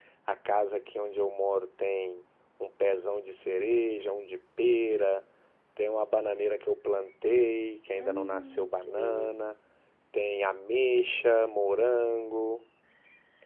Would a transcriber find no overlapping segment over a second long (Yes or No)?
No